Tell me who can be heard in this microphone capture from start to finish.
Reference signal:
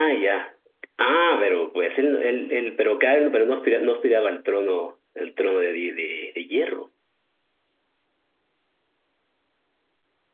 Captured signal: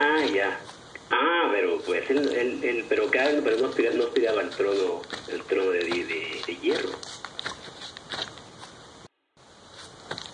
echo only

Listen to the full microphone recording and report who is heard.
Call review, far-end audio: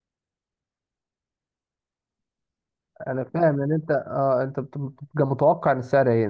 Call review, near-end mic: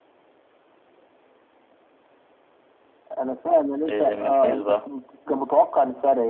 both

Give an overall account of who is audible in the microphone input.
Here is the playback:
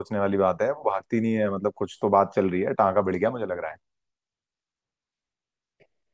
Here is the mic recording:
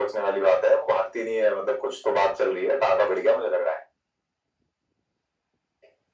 echo only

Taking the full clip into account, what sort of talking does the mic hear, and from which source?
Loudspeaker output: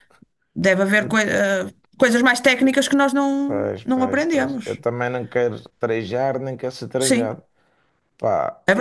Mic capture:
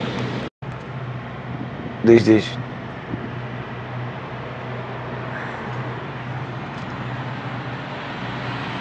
user only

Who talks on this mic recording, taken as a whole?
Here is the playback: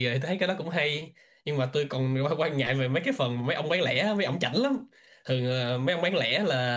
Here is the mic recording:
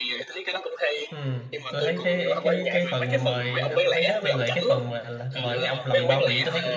both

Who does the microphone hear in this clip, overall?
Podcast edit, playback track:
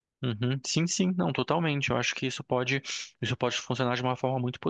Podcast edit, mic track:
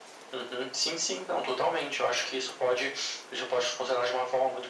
echo only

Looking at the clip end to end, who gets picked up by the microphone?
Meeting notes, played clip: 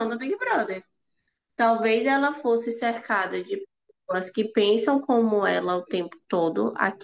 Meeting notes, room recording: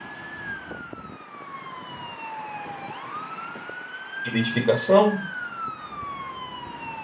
user only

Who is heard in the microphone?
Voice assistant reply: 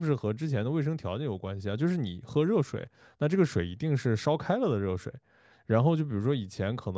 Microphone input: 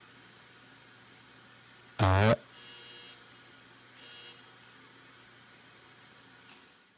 user only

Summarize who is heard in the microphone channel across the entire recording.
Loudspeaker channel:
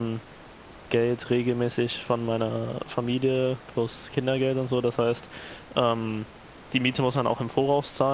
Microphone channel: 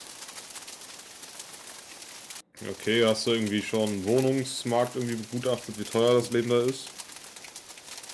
user only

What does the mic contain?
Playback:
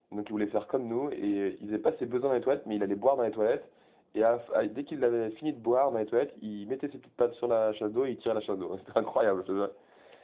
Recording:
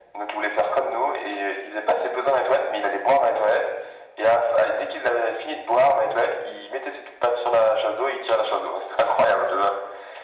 echo only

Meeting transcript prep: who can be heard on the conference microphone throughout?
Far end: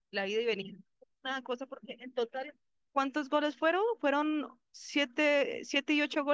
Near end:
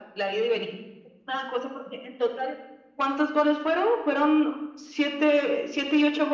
echo only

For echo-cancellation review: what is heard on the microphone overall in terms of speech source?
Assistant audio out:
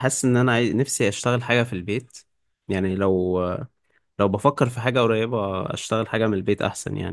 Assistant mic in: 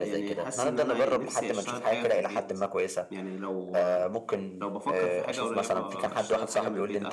both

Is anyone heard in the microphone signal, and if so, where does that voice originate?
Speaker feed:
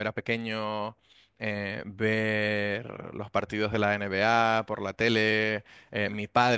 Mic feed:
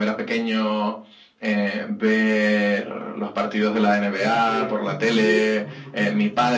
both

